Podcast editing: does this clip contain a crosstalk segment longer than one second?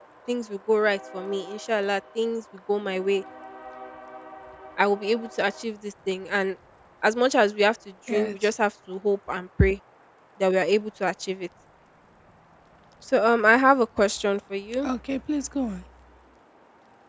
No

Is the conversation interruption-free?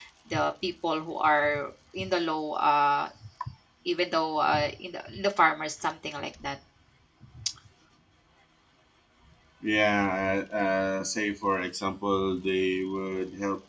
Yes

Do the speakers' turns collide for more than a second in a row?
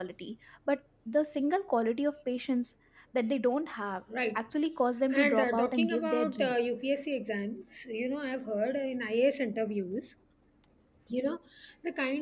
Yes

